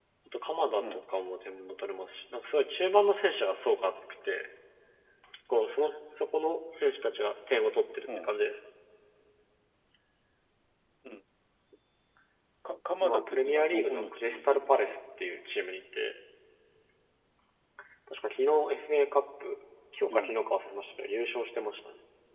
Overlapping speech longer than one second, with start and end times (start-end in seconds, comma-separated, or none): 13.0-14.7